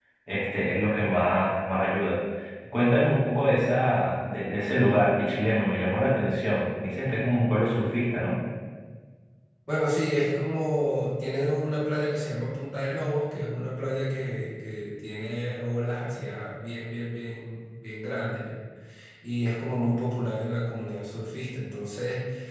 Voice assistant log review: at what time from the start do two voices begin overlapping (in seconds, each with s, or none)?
none